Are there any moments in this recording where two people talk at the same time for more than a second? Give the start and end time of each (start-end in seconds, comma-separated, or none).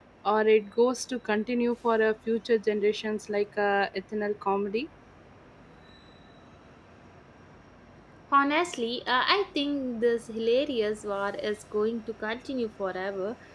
none